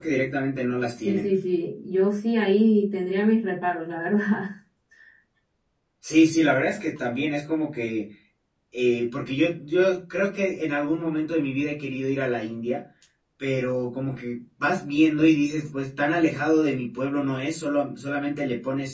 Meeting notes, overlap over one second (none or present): none